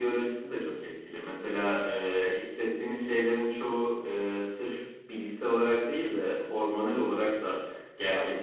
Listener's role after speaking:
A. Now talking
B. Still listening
B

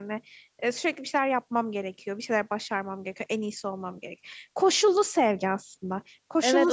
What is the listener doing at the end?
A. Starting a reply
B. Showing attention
A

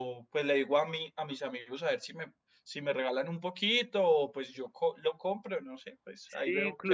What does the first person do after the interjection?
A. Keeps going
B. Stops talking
B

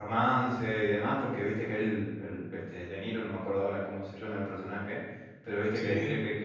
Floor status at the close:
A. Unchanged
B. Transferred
A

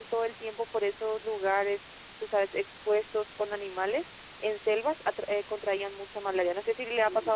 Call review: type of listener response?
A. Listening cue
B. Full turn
B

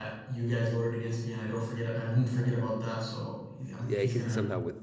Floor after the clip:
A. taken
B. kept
A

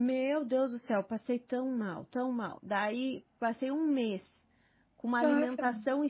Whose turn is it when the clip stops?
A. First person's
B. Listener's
A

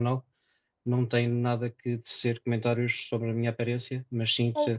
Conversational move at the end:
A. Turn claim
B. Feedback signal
B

